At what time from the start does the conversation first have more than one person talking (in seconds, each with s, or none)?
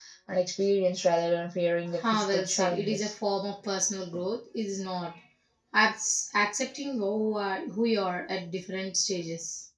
1.9 s